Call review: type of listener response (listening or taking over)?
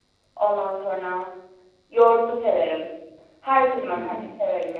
listening